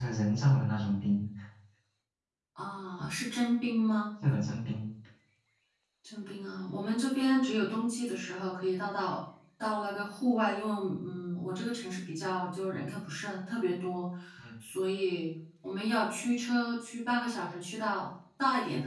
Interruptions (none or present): none